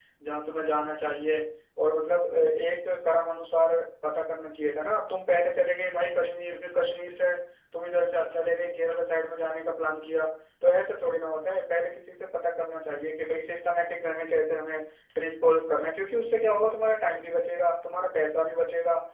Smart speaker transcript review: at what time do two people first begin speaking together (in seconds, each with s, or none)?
none